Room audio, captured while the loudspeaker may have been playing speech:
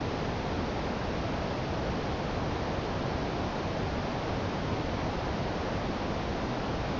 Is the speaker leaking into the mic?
No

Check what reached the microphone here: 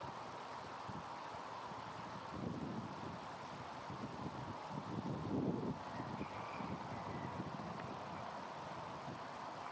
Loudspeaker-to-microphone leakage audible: No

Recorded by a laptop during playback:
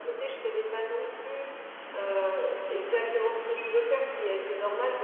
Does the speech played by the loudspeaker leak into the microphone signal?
Yes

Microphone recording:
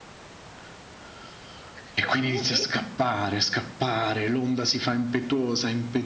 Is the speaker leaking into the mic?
Yes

